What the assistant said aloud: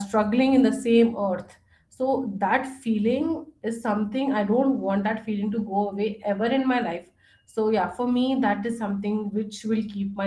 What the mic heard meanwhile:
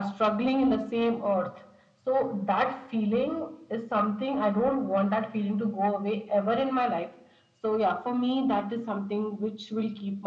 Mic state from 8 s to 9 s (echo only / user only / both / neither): echo only